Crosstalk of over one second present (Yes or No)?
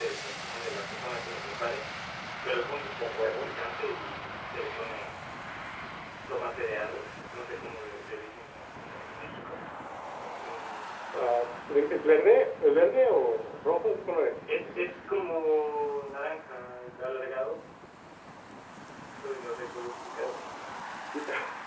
No